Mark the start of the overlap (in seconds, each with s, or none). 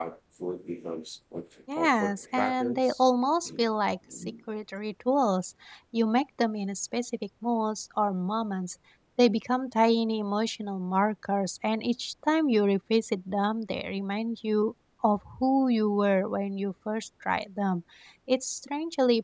1.8 s